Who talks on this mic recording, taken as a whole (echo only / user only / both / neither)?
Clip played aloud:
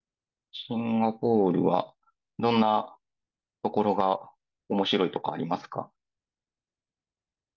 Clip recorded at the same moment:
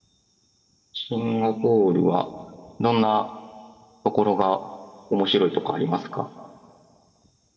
echo only